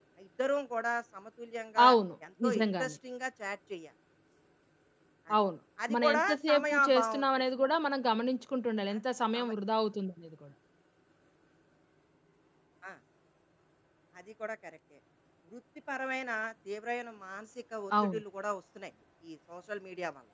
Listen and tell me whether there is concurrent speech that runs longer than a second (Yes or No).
Yes